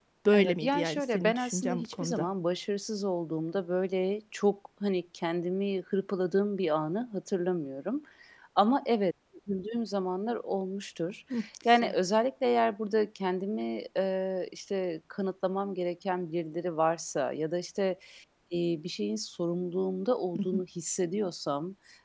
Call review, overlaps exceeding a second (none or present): present